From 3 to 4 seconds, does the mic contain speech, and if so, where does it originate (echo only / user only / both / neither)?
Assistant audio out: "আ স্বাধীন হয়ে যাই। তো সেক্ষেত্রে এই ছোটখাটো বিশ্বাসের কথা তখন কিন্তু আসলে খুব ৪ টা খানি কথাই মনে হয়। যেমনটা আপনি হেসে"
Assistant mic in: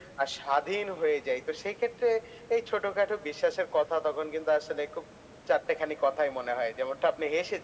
echo only